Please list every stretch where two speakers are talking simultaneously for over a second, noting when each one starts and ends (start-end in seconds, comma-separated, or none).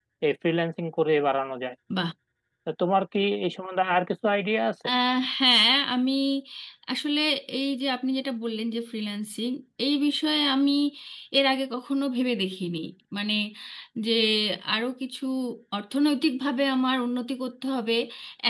none